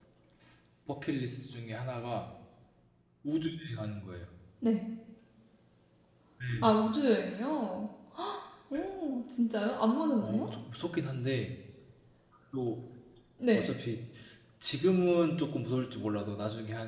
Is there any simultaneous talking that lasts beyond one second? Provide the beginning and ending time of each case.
none

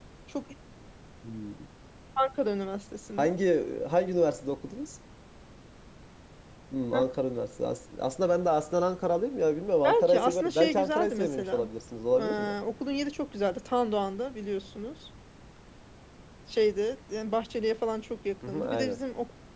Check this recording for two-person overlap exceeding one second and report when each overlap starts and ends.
9.8-11.6

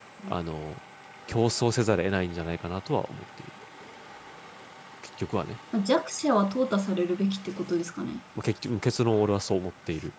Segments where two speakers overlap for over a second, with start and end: none

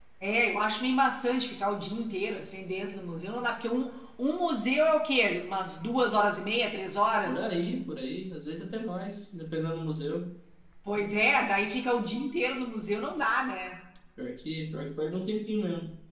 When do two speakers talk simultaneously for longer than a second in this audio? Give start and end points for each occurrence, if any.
none

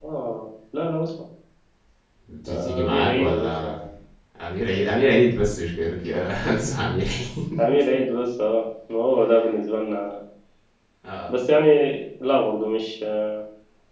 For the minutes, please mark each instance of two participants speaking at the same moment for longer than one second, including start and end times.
2.5-3.8

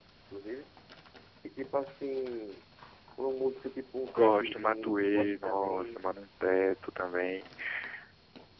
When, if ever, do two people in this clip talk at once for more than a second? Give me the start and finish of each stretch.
4.1-6.0

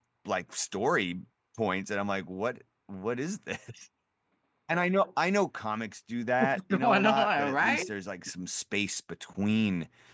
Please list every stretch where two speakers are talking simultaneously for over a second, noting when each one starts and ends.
6.4-7.9

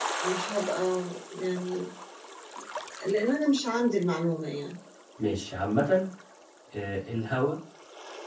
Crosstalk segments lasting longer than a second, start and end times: none

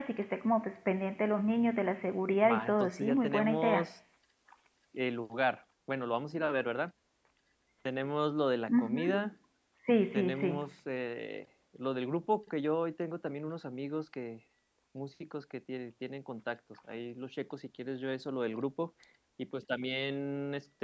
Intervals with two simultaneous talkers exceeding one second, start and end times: 2.5-3.9

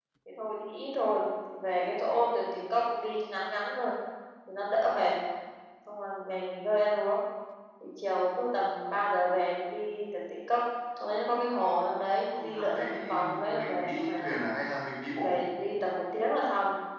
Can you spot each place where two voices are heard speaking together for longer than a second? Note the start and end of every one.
12.3-14.3

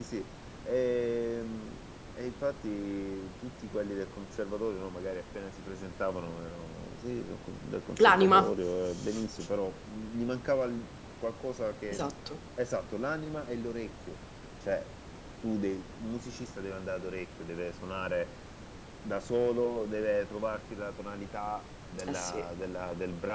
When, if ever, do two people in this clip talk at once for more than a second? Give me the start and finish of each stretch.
none

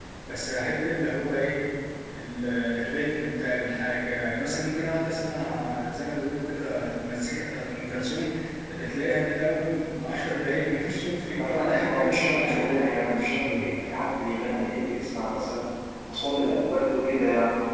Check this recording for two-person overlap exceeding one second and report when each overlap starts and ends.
11.4-13.7

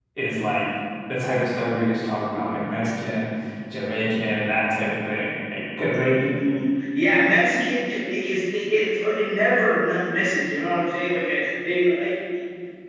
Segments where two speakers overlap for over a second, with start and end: none

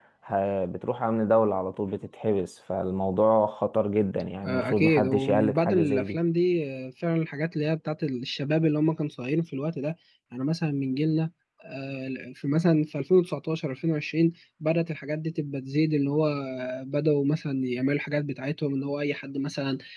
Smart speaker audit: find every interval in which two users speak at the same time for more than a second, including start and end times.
4.4-6.2

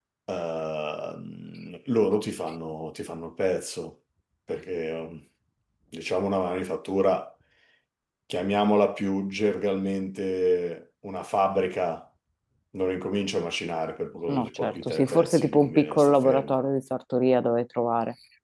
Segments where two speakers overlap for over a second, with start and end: 14.3-16.6

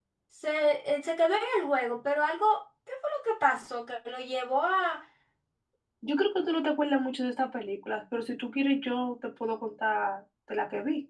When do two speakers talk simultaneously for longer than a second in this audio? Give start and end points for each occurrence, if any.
none

